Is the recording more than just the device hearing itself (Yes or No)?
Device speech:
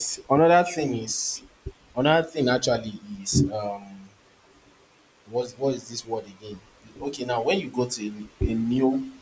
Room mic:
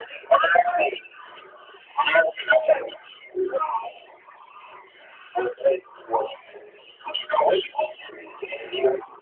No